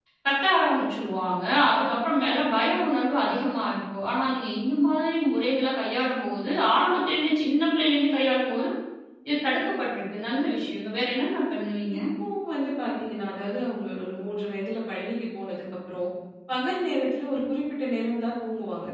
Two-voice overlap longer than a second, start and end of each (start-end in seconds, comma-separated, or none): none